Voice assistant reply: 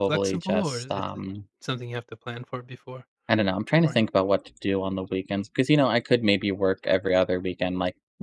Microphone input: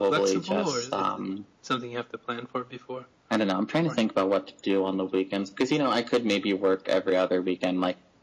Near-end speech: none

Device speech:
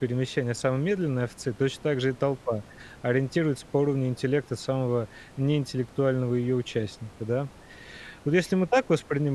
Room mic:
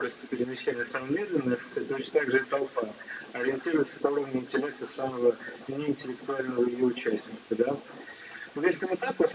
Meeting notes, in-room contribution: none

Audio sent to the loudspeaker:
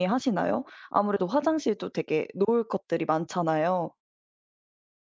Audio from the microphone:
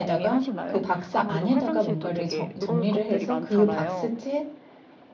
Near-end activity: present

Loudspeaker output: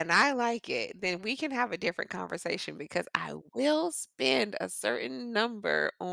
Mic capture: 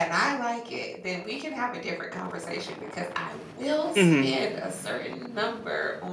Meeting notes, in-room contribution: present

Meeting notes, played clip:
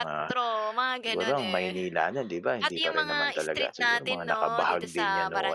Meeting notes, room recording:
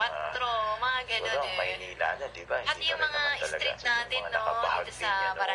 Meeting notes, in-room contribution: none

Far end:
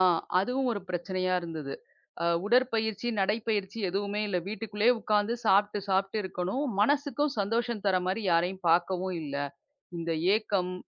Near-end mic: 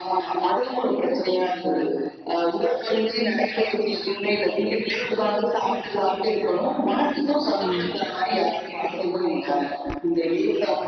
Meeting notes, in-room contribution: present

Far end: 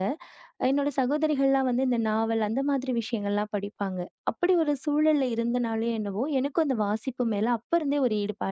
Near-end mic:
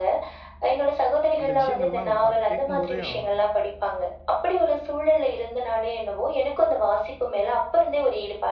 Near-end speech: present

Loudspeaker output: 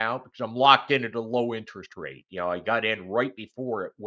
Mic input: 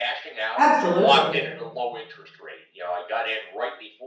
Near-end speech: present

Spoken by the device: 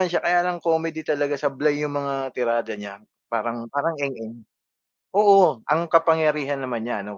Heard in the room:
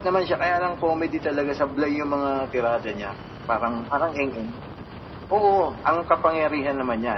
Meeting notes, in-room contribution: none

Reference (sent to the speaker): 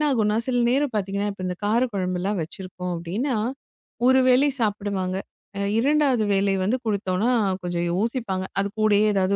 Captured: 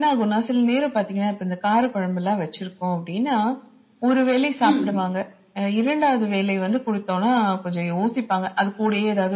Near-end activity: present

